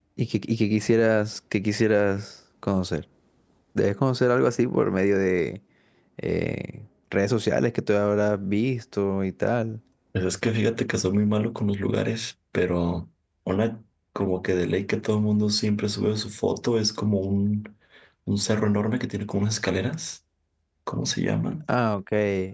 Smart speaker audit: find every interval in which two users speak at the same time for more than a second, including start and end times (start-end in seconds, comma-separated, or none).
none